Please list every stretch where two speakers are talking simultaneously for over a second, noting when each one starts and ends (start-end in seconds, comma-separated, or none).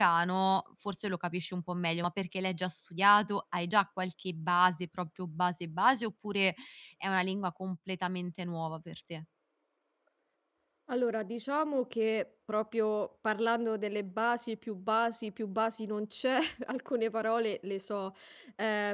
none